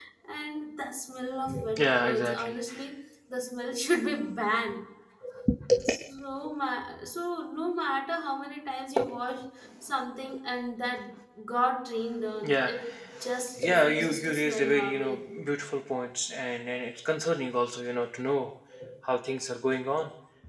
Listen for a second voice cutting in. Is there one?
Yes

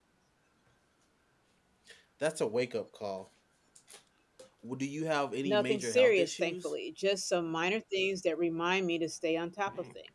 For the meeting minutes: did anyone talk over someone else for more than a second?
Yes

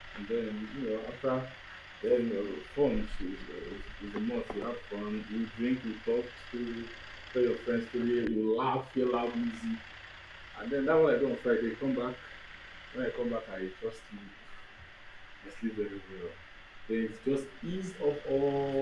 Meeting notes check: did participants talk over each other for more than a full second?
No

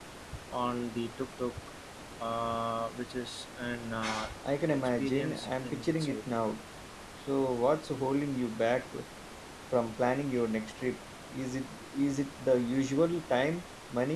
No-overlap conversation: No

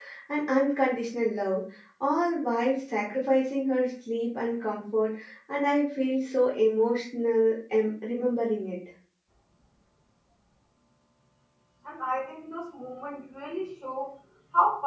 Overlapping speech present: No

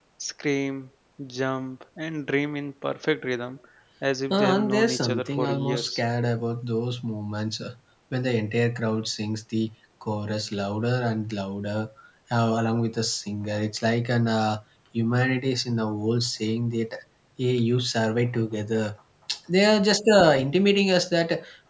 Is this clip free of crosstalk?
No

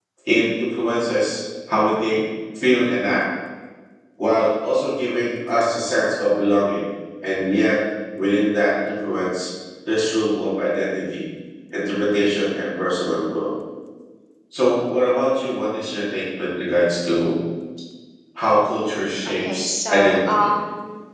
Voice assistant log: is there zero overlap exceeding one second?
No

